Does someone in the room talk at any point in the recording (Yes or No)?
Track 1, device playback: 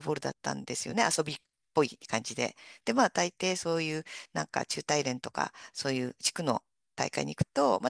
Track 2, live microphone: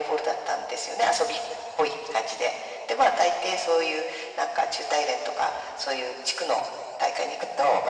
No